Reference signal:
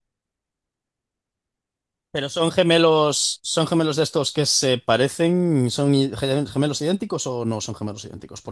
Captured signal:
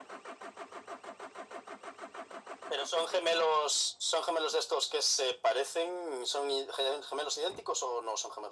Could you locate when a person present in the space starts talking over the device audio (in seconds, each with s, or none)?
none